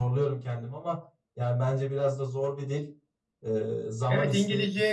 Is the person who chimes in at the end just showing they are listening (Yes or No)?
No